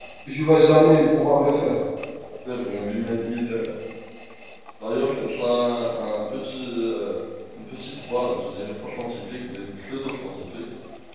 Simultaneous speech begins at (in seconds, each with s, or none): none